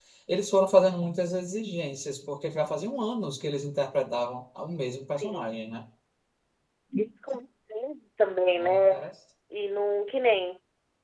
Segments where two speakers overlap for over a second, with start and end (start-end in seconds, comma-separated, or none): none